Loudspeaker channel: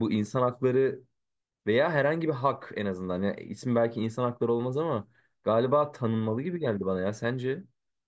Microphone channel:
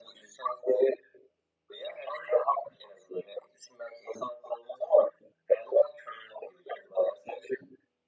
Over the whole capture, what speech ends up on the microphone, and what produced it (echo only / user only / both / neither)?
echo only